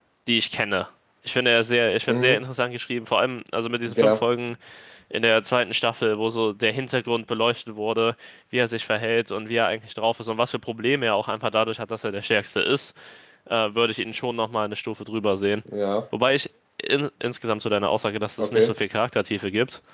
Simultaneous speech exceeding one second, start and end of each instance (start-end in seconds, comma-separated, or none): none